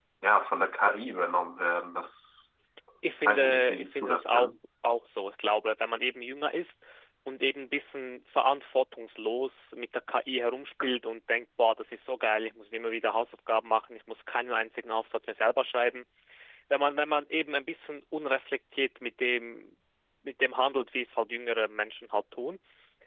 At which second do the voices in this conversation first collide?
3 s

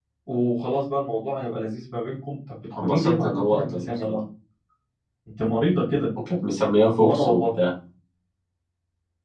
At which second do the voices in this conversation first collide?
3 s

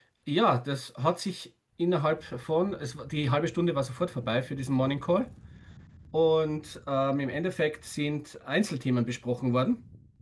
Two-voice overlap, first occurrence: none

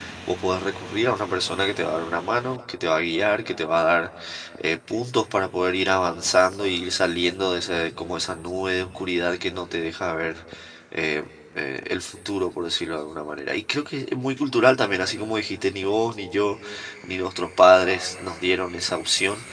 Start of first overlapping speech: none

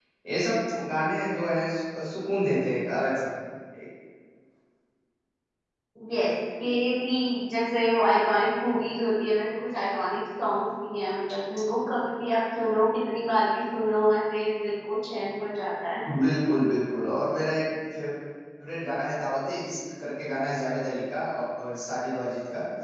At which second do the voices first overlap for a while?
none

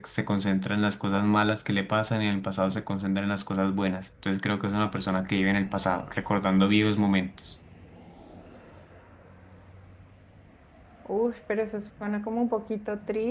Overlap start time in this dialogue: none

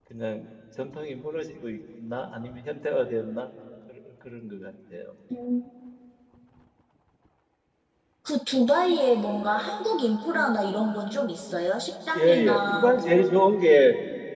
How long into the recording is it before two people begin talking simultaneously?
12 s

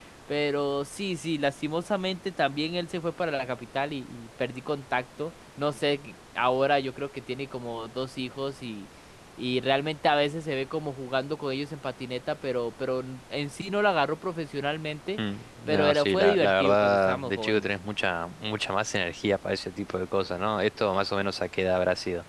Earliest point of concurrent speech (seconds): 16 s

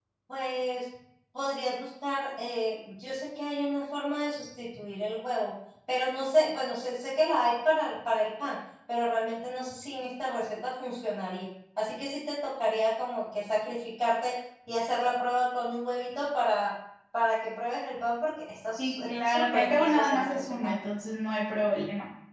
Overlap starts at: 19 s

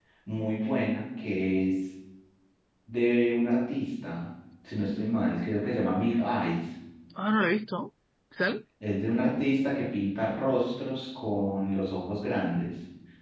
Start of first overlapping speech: none

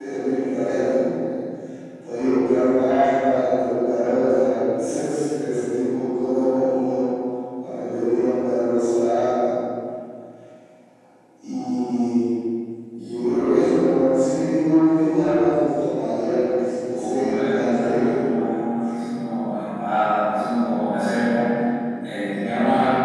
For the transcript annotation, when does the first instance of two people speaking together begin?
17 s

